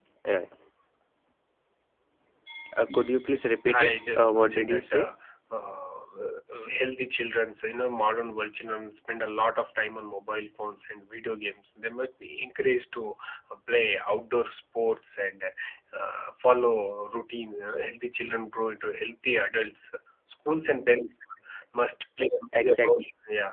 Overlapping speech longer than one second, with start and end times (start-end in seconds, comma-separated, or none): 3.7-5.1